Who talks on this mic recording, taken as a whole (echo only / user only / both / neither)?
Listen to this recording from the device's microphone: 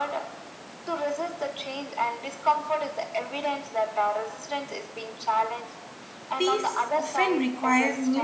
both